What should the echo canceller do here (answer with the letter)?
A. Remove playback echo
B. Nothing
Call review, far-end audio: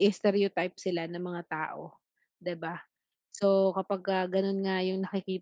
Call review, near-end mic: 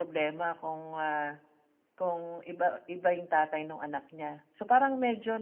B